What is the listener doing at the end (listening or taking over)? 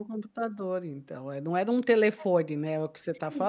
taking over